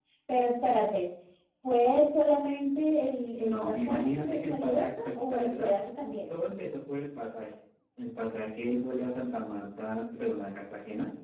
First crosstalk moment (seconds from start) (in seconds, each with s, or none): 3.4 s